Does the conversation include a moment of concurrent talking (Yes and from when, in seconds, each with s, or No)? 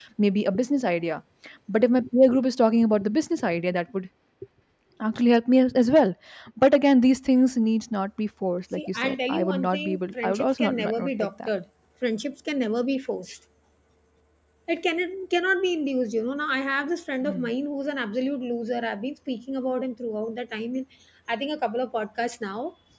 Yes, from 8.8 s